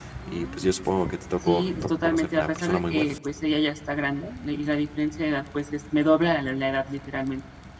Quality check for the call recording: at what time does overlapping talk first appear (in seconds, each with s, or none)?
1.4 s